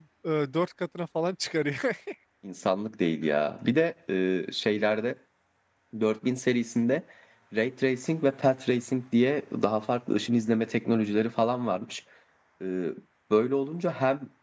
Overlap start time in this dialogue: none

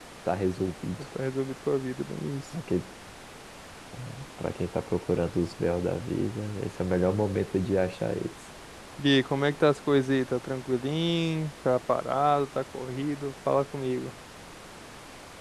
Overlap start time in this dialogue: none

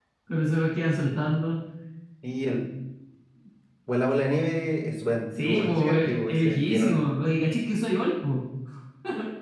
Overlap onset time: 5.3 s

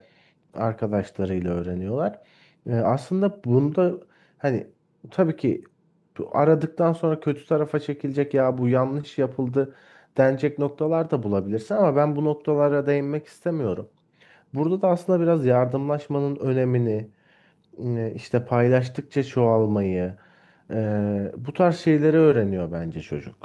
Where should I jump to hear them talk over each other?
none

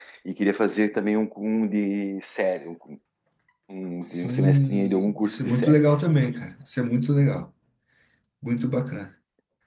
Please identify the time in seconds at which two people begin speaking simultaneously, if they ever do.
4.1 s

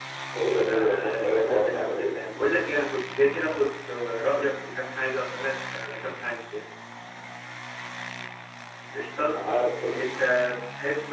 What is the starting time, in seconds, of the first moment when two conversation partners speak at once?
0.5 s

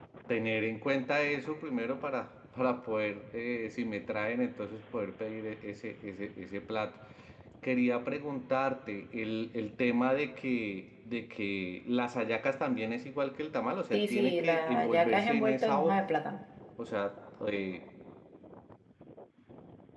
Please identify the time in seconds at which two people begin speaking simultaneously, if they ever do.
13.9 s

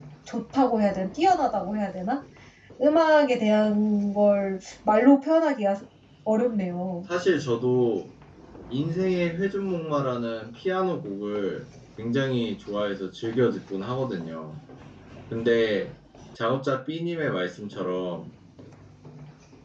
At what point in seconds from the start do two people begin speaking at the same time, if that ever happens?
none

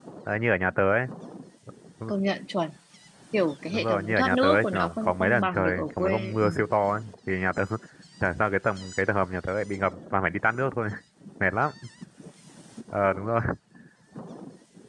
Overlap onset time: 3.7 s

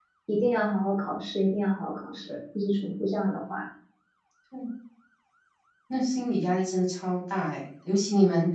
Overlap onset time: none

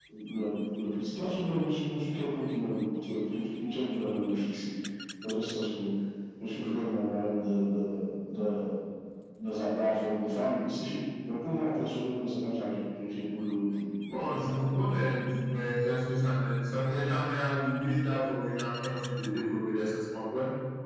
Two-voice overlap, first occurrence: none

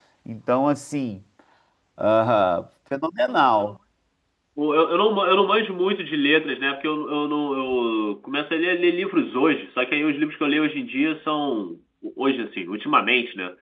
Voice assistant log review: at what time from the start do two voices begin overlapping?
none

